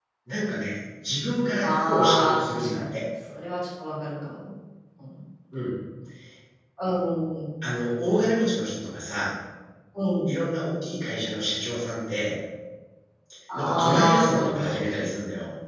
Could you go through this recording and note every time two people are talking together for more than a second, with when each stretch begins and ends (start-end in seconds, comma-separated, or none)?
1.6-3.0, 13.6-14.8